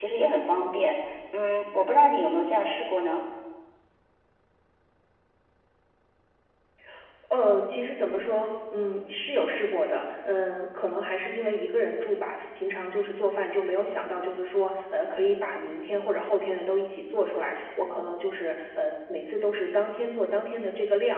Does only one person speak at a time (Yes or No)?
Yes